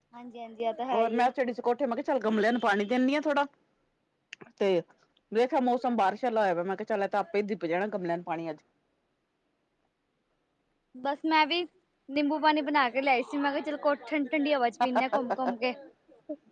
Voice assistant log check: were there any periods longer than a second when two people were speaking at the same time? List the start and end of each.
none

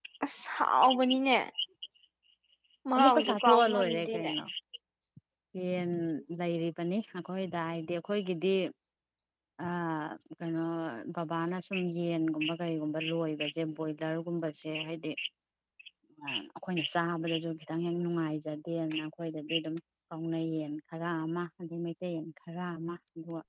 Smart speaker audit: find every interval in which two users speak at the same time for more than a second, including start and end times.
3.0-4.3

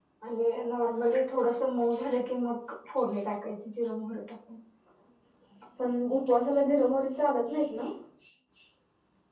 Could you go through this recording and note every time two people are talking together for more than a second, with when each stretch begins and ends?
none

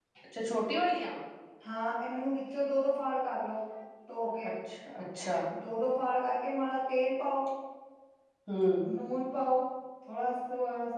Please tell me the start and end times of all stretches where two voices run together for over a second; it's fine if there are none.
none

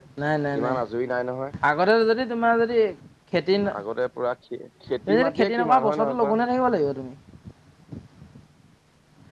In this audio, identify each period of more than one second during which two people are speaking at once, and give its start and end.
5.1-6.3

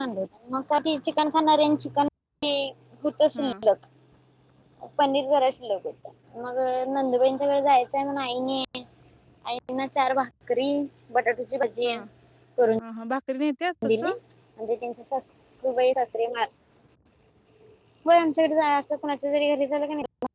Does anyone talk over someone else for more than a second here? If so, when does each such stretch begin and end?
none

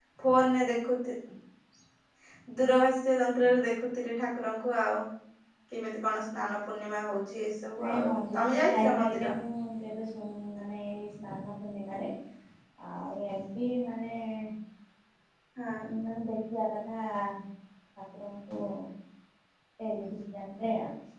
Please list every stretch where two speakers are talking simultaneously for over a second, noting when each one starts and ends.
7.8-9.3

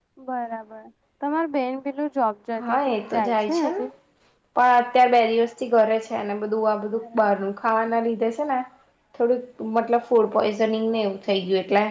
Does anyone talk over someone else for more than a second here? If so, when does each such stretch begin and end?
2.6-3.8

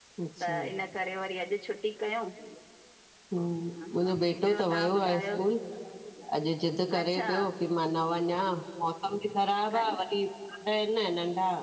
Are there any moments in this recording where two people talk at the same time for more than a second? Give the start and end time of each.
3.9-5.2

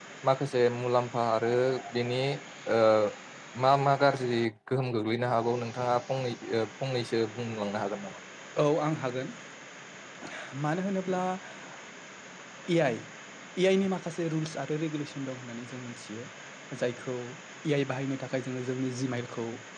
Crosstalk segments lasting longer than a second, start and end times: none

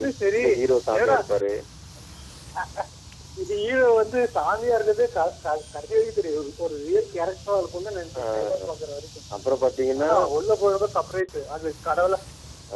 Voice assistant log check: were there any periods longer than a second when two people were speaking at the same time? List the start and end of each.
none

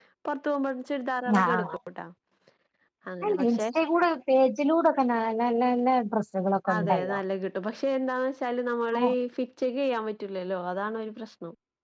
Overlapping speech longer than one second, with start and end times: none

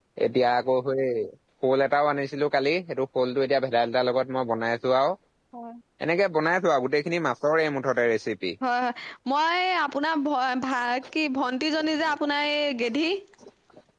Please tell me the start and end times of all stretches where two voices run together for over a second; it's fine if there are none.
none

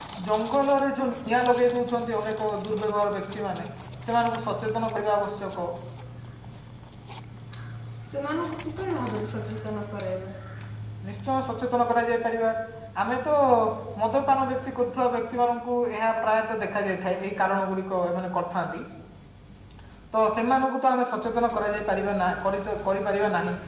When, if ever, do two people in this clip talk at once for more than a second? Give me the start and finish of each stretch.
none

